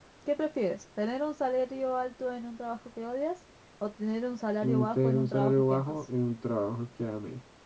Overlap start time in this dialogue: 5 s

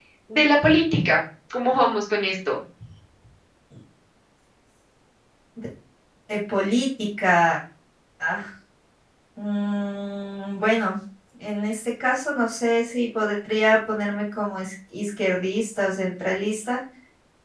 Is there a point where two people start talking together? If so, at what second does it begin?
none

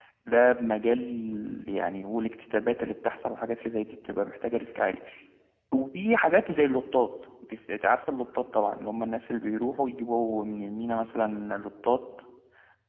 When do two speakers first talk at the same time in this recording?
none

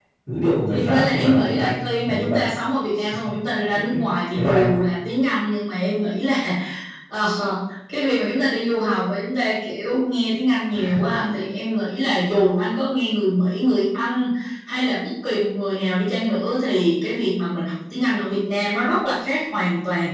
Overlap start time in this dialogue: 1 s

